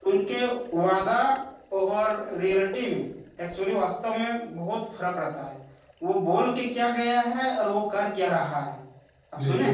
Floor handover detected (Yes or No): Yes